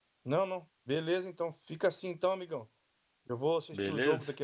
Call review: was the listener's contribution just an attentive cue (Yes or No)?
Yes